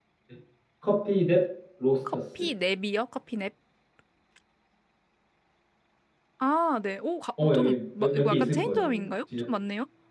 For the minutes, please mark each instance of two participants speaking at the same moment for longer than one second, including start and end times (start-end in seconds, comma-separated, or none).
7.4-9.4